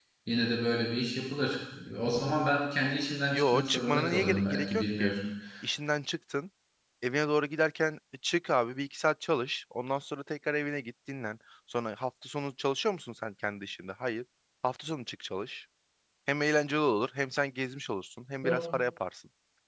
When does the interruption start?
3.3 s

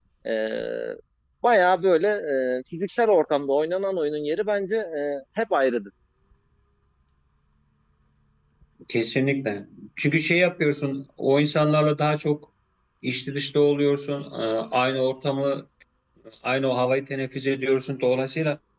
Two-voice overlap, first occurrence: none

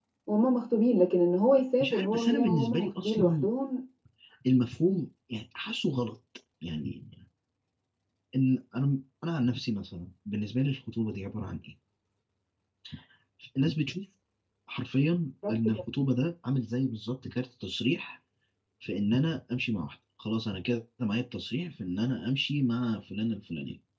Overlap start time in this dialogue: 1.8 s

